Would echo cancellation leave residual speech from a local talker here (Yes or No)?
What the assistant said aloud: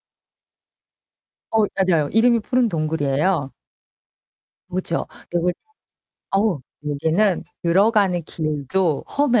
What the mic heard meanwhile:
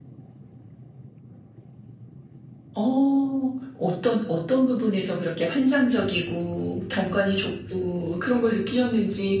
Yes